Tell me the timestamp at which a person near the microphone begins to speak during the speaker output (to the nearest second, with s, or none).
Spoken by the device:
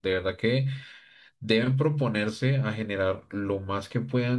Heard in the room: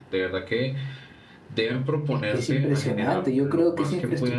2 s